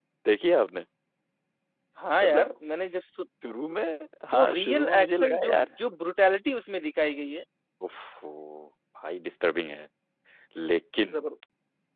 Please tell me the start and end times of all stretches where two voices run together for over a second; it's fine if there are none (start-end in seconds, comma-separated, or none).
4.3-5.7